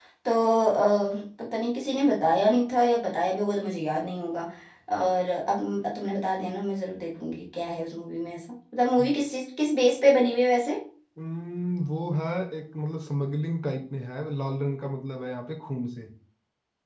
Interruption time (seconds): none

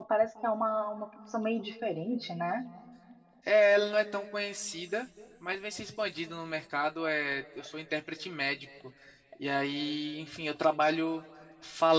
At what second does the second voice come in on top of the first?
none

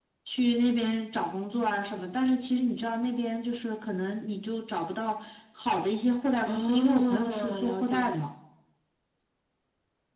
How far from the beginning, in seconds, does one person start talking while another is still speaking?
6.4 s

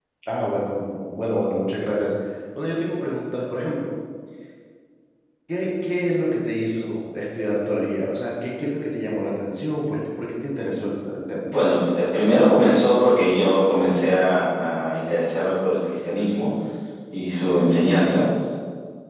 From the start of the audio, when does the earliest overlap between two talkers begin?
none

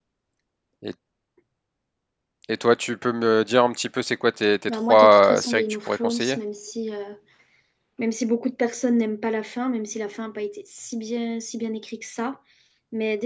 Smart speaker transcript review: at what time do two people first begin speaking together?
4.7 s

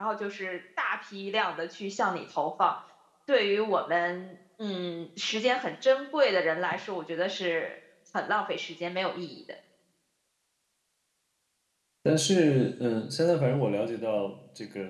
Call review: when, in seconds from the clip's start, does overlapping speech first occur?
none

